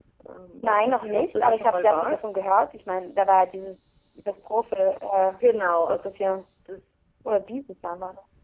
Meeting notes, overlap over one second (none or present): present